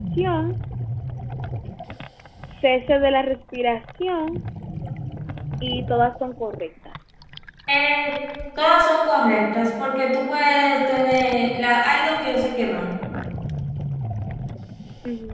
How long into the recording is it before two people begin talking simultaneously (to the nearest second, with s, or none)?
none